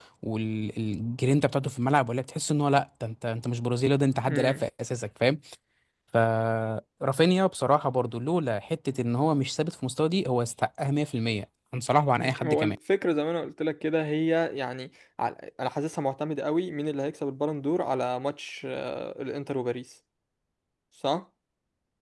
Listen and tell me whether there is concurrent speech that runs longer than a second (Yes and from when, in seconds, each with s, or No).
No